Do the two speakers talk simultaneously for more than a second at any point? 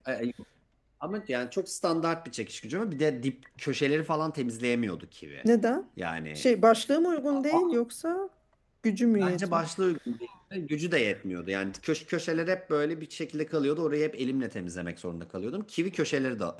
No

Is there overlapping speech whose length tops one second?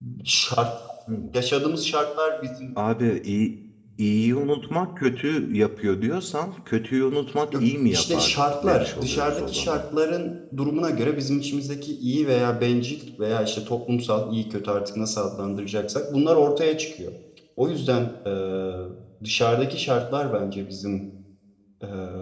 Yes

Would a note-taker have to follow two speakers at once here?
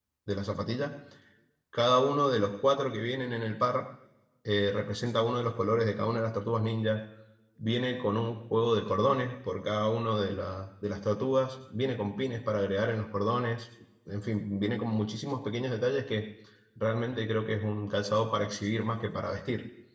No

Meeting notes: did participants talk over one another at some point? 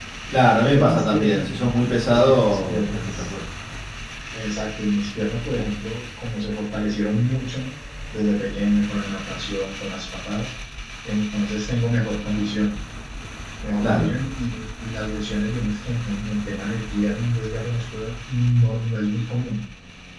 Yes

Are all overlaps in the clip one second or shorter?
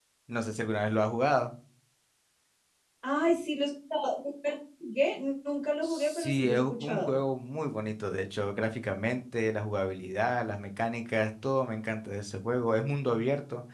No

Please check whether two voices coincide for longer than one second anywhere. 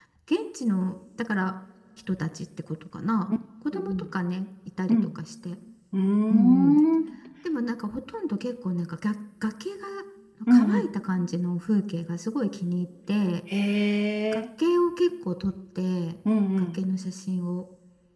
No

